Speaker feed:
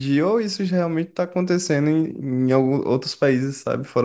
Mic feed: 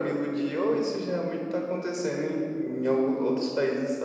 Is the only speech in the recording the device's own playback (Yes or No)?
Yes